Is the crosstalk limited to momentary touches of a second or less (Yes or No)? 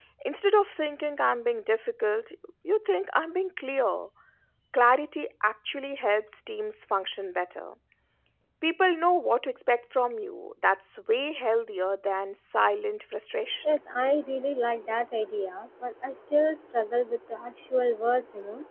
Yes